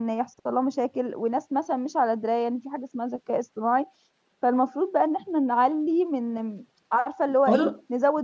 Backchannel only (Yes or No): Yes